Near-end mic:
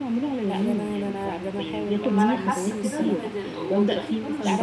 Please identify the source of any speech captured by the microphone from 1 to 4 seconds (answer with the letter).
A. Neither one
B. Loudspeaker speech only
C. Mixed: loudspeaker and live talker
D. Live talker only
C